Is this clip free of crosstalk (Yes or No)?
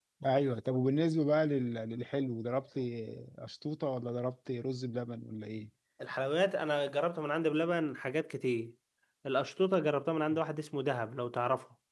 Yes